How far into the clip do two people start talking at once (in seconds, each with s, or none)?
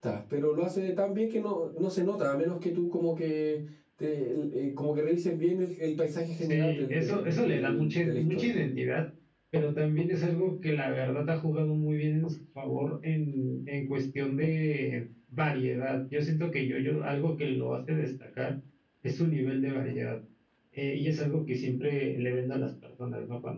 6.4 s